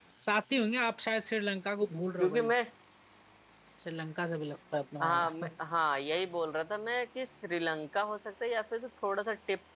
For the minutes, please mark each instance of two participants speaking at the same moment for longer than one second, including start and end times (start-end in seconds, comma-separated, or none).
none